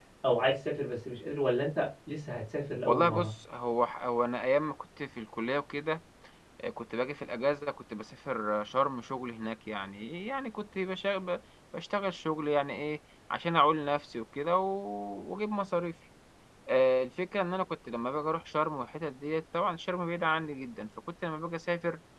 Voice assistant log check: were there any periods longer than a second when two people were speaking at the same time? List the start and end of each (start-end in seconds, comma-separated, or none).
none